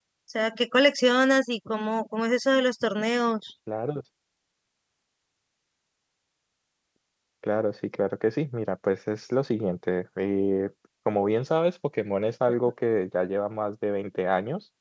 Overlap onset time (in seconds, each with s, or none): none